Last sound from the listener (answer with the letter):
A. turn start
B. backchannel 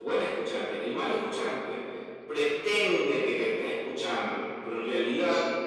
B